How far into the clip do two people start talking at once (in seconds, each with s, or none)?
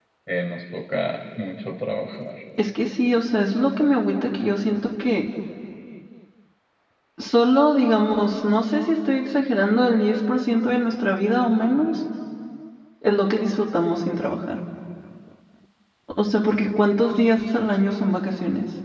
none